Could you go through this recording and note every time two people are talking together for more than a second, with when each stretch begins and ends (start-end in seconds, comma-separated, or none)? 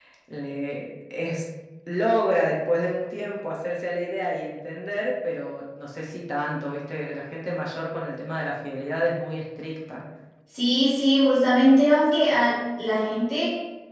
none